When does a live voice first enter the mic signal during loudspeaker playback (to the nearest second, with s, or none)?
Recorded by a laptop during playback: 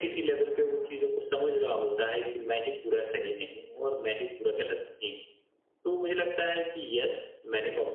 none